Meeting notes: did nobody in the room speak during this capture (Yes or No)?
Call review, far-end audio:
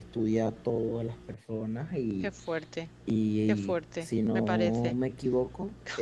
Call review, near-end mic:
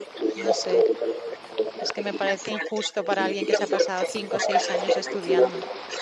No